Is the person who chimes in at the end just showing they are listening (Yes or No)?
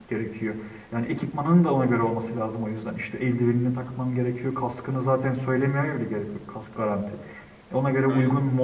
Yes